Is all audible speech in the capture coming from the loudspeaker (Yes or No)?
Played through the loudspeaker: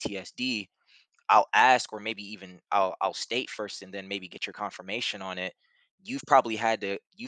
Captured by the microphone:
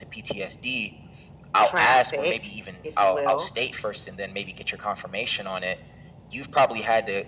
No